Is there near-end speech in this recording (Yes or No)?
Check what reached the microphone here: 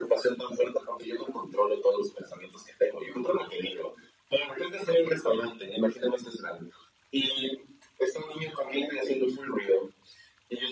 No